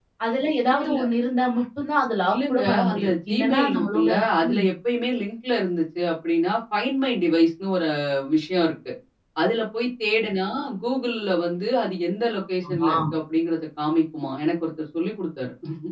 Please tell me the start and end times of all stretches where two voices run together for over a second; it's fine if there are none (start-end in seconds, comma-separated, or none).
2.3-4.1